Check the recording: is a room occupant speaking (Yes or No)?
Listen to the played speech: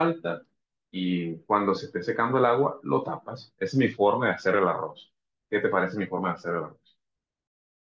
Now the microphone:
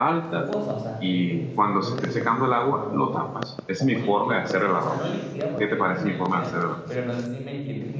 Yes